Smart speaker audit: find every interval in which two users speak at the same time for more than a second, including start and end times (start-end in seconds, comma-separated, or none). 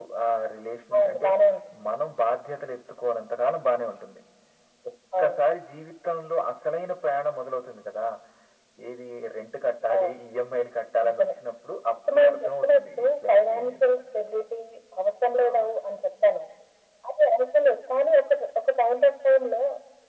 12.1-13.8